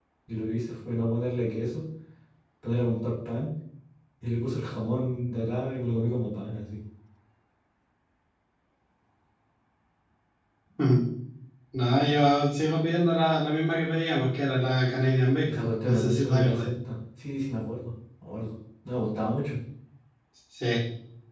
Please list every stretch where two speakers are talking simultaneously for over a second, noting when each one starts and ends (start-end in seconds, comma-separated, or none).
15.4-16.7